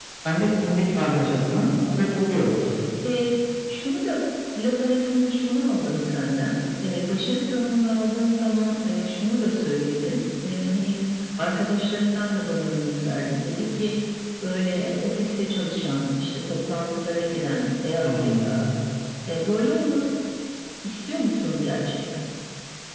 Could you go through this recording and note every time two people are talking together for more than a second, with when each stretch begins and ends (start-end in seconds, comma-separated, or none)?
none